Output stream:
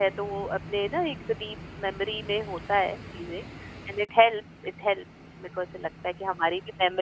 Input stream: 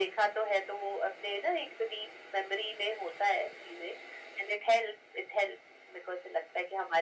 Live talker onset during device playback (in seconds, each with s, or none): none